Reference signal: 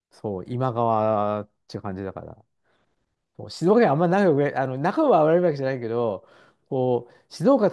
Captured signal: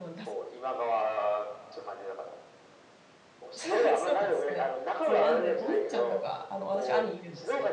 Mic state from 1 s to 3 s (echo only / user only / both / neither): echo only